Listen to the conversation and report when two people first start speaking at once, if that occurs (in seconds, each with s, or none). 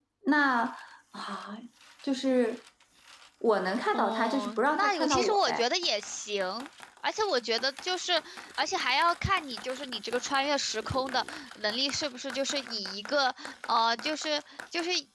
3.9 s